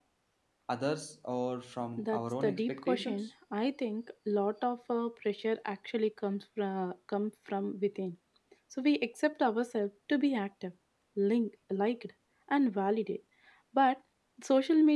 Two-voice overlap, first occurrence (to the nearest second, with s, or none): 2 s